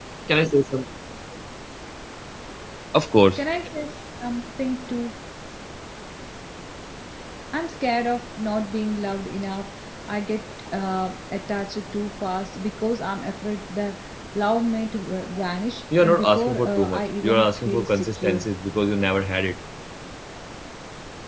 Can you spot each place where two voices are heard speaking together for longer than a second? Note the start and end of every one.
16.0-18.4

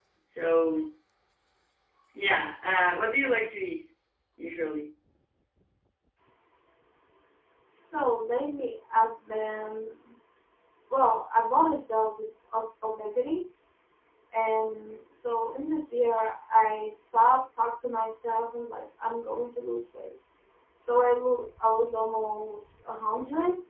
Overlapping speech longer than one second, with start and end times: none

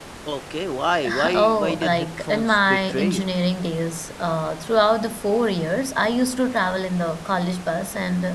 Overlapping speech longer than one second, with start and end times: 1.3-3.3

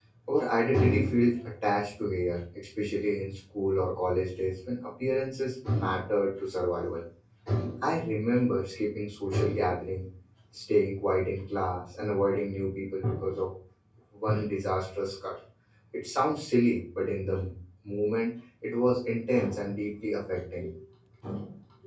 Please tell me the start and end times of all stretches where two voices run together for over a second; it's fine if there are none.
none

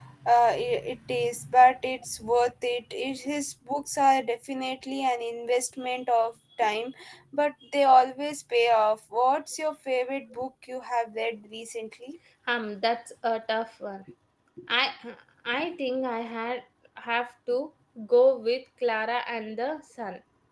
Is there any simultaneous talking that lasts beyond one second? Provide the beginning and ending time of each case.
none

